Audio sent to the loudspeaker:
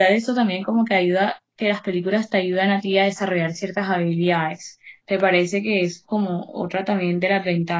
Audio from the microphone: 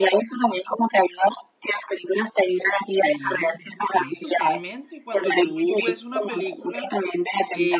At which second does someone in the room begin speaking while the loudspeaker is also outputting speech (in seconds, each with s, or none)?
2.9 s